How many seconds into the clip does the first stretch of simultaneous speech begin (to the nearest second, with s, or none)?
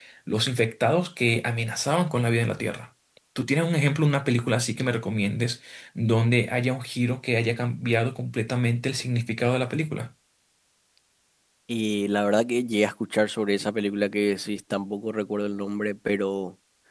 none